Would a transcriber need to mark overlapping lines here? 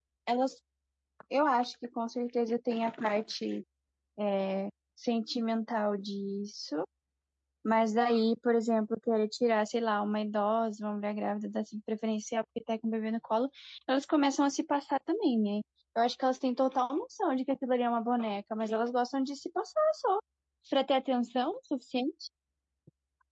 No

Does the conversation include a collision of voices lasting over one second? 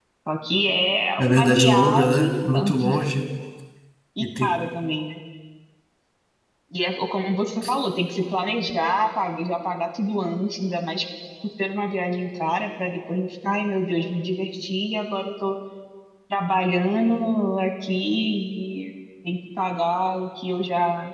Yes, from 1.2 s

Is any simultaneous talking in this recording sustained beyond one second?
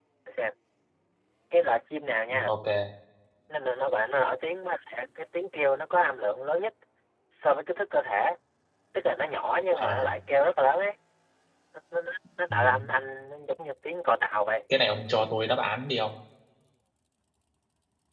No

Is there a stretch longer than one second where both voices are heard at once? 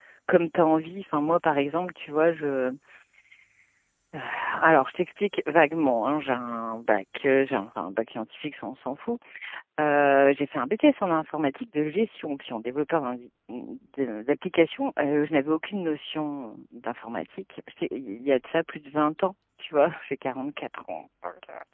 No

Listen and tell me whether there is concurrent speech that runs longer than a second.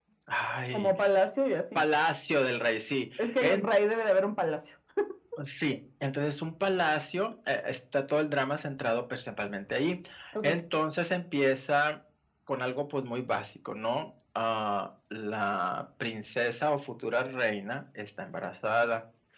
No

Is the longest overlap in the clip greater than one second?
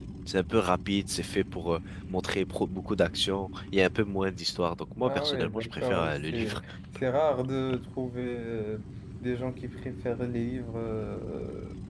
Yes, from 5.0 s

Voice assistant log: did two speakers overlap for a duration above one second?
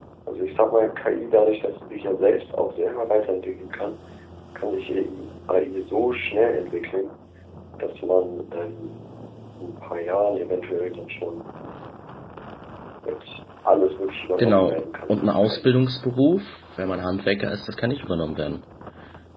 Yes, from 14.4 s

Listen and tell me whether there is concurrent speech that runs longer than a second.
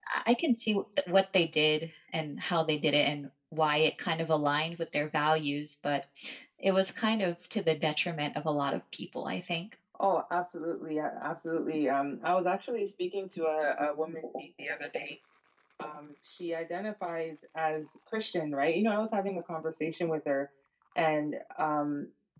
No

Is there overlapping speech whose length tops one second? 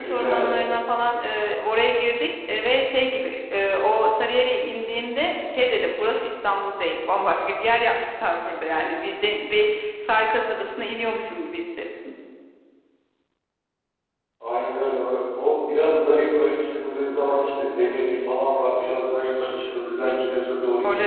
No

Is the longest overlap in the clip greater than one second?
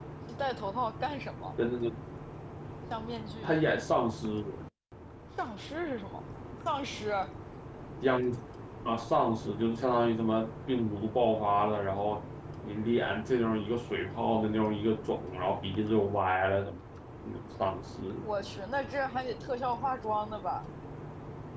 No

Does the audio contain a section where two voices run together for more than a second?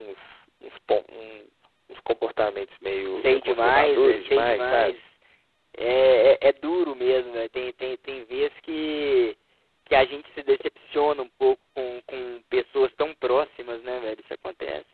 Yes, from 3.1 s

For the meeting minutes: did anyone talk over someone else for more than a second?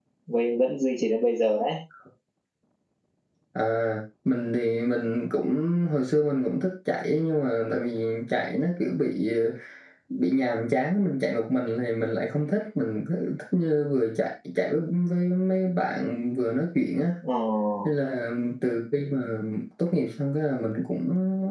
No

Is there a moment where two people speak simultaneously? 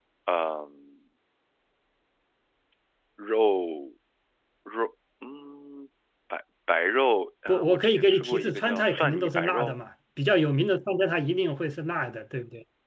Yes, from 7.5 s

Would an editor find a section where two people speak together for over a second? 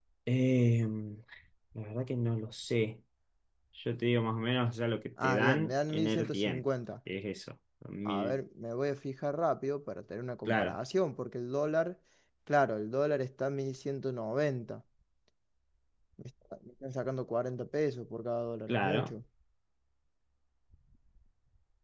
Yes, from 5.2 s

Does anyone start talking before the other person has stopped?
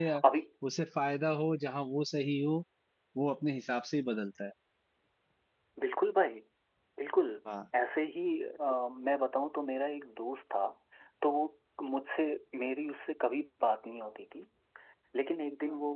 No

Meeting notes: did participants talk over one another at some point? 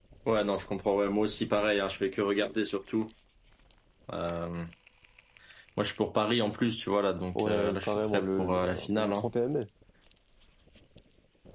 Yes, from 7.4 s

